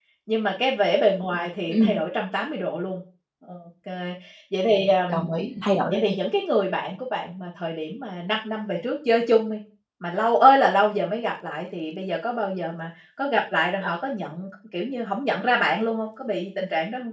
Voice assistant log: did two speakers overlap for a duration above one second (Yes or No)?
No